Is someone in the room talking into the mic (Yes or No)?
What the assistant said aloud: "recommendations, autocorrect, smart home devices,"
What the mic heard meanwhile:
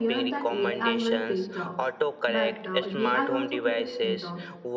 Yes